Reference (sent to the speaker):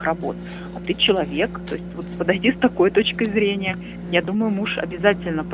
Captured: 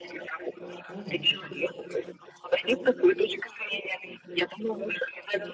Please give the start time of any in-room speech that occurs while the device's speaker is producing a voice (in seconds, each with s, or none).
0.9 s